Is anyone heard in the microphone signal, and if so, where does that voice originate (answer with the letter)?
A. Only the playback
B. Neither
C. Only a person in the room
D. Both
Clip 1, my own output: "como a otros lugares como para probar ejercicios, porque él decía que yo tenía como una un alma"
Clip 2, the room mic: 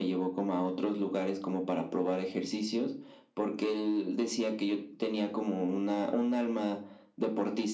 A